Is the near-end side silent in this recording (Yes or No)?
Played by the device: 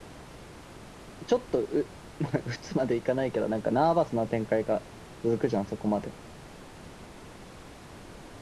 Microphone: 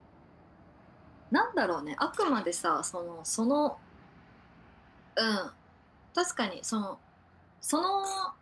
No